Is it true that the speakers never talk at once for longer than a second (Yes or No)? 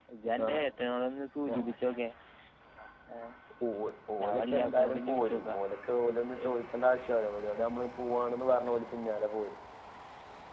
No